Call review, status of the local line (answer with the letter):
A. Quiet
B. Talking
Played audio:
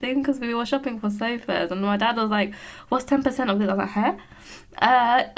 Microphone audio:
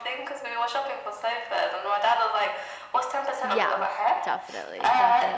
B